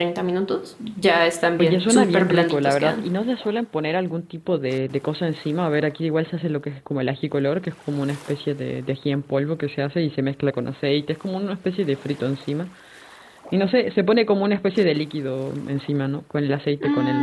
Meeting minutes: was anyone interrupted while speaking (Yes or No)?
Yes